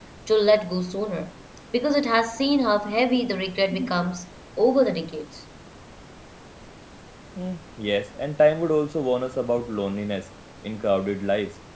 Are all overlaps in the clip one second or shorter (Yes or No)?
Yes